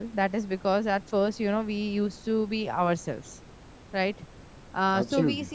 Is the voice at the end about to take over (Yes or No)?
No